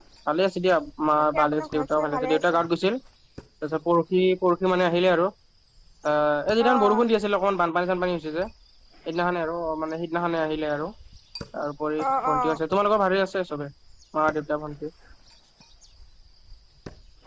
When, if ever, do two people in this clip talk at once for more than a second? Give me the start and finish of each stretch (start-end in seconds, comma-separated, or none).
1.3-2.6